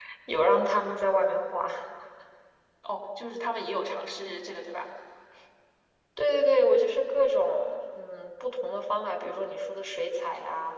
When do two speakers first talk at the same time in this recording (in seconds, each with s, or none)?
none